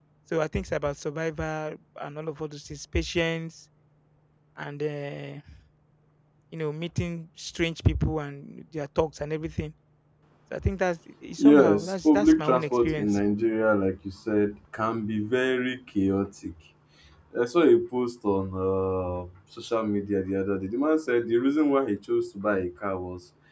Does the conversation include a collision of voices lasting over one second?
Yes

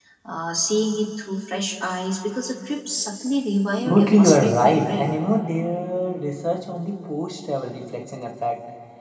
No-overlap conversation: No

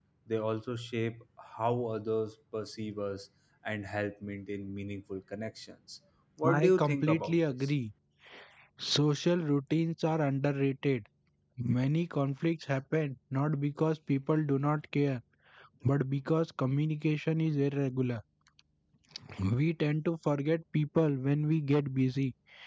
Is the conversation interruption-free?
No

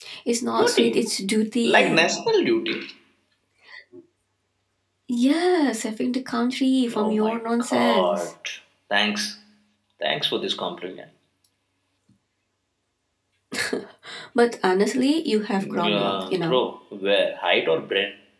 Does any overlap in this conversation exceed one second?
Yes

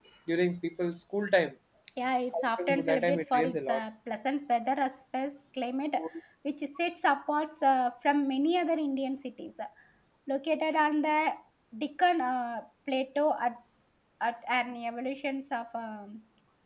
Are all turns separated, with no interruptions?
No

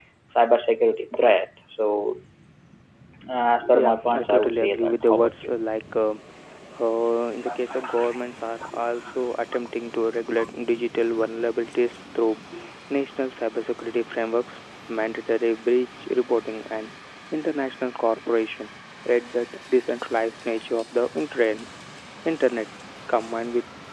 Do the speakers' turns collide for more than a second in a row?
Yes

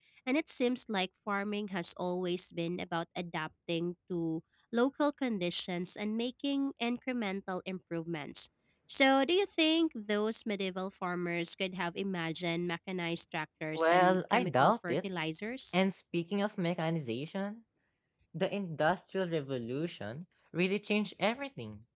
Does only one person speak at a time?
No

